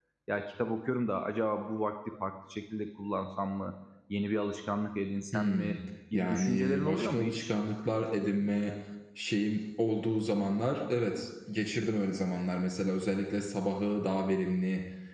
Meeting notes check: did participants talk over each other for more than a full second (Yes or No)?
Yes